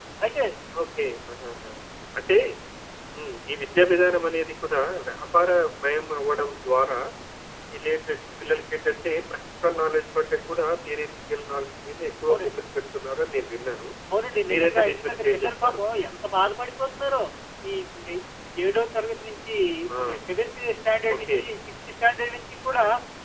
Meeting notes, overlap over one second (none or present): present